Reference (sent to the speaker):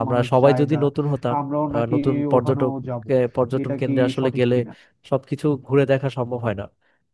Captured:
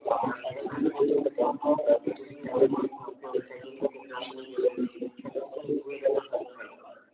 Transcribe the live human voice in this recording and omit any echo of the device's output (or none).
none